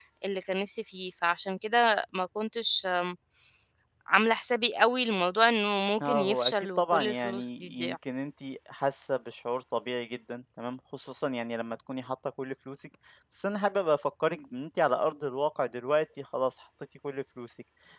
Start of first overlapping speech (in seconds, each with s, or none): 6.0 s